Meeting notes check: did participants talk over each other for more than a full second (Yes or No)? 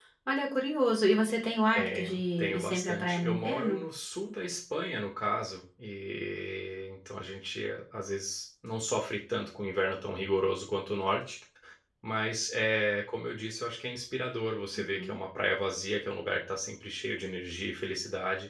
Yes